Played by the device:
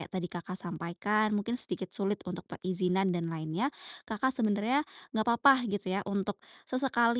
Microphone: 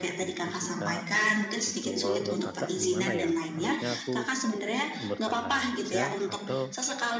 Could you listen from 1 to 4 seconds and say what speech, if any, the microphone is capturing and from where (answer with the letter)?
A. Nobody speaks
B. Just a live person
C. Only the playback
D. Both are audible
D